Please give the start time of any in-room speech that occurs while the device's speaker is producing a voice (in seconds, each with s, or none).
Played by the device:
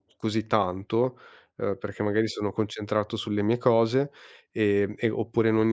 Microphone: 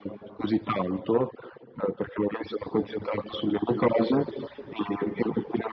none